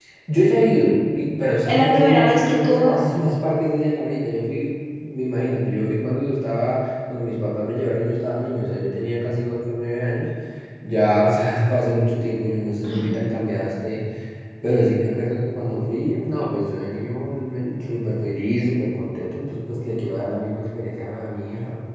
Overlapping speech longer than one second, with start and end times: 1.7-3.0

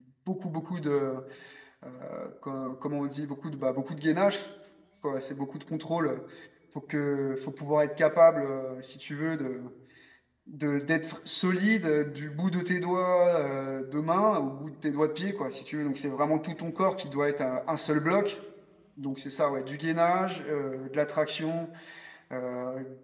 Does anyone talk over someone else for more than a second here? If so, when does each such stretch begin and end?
none

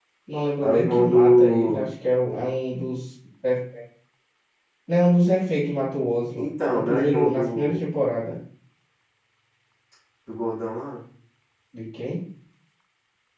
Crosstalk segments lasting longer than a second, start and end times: 0.6-1.8, 6.4-7.9

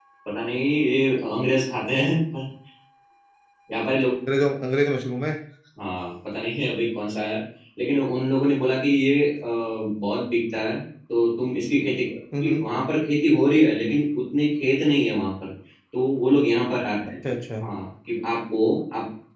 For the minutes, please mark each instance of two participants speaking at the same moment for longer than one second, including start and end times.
none

